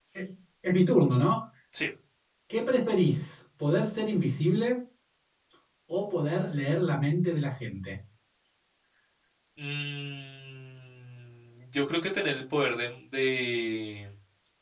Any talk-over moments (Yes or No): No